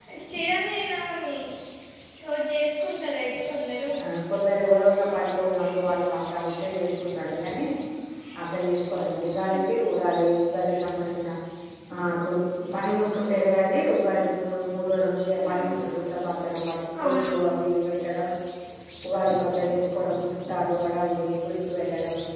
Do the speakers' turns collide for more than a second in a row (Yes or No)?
No